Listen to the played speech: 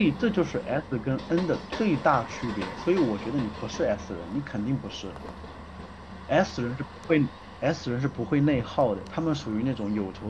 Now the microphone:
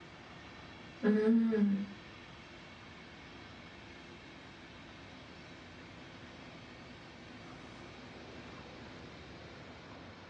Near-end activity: present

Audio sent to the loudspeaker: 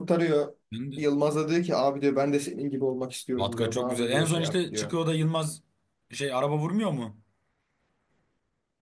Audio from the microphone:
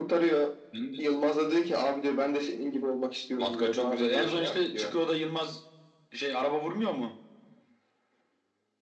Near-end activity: none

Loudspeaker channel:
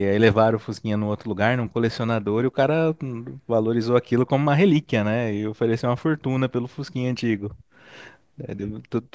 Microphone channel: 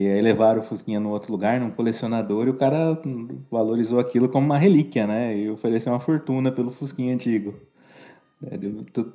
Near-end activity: none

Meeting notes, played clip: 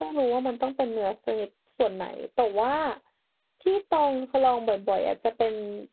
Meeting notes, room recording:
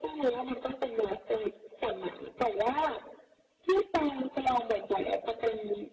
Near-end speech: none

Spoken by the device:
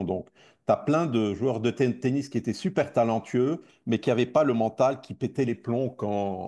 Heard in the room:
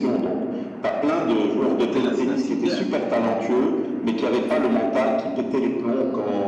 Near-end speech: present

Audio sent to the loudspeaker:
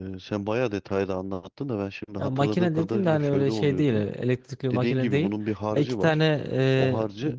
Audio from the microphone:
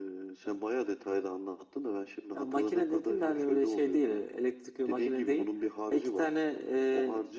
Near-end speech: none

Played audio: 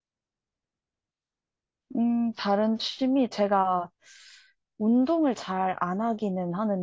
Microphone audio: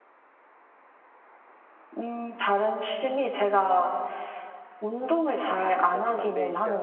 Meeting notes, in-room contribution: present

